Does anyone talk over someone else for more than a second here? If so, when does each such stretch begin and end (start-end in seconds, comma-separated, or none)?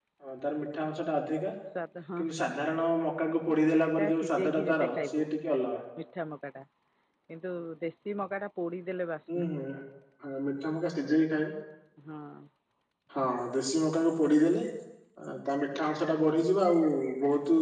3.5-5.2